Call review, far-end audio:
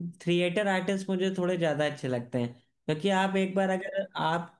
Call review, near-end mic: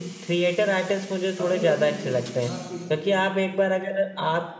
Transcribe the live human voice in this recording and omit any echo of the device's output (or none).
अभी अभी एक हाँ एक